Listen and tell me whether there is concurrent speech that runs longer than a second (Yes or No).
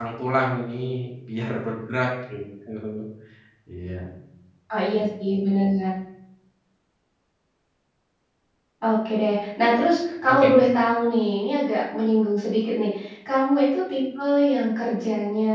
No